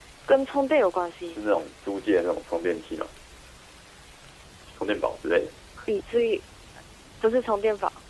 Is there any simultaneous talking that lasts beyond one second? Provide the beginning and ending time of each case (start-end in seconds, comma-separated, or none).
none